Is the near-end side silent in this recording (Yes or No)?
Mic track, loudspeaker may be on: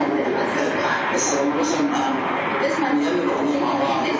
Yes